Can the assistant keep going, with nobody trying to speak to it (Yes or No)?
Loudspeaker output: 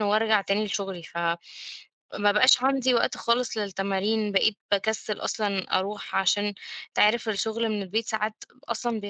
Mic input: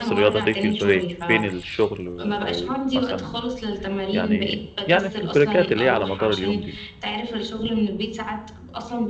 No